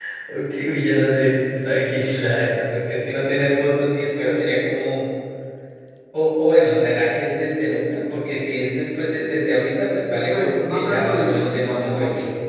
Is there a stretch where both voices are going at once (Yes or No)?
Yes